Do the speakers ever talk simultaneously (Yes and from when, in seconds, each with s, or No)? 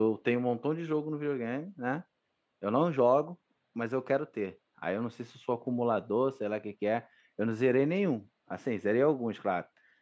No